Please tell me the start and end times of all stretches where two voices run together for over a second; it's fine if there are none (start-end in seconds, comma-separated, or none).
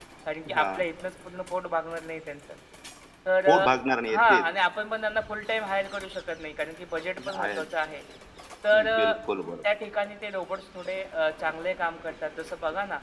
none